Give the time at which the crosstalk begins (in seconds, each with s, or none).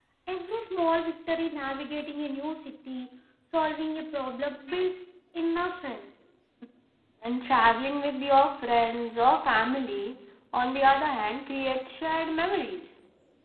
none